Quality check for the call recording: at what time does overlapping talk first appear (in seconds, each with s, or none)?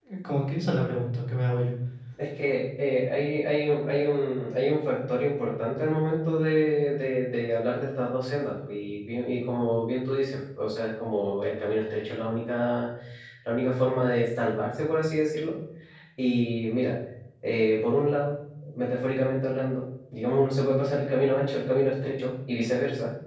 none